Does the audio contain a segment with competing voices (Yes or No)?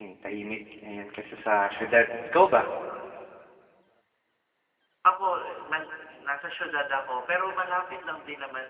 No